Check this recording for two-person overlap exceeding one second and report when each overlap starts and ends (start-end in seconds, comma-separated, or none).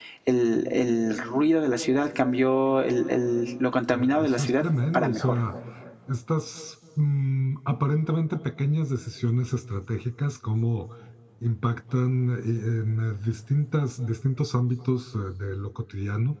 3.9-5.4